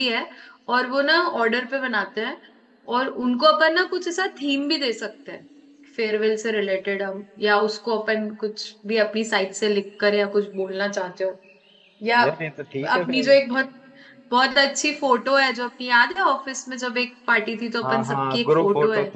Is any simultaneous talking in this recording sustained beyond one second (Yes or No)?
Yes